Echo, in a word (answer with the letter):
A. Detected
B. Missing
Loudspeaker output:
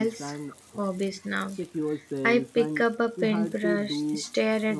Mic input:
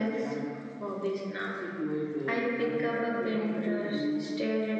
A